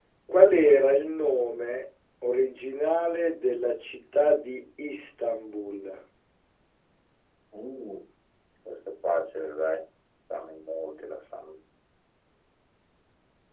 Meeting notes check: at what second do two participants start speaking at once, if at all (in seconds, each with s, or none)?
none